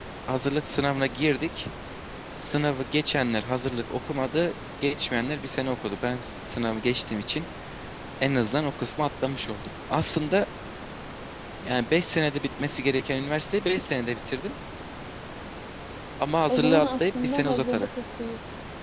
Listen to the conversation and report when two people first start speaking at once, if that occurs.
16.5 s

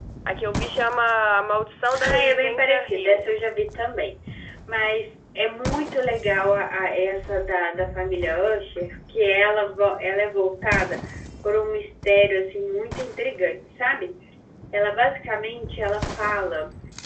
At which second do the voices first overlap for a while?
2.0 s

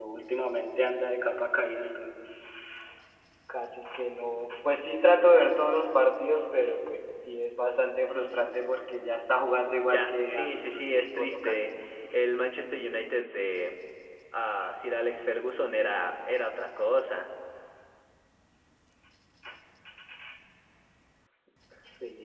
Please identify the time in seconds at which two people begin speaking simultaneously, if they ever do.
9.8 s

